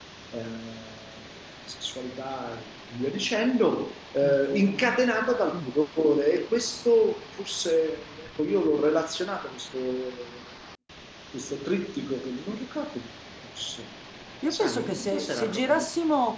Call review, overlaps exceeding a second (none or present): present